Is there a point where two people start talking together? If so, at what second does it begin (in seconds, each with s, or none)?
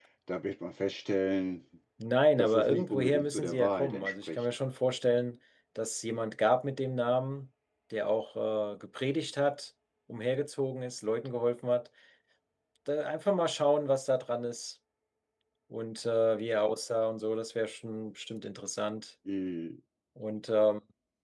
2.4 s